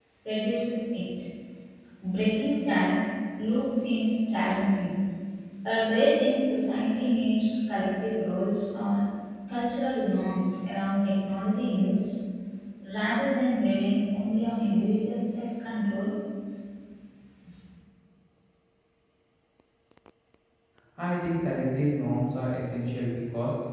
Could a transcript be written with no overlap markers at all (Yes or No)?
Yes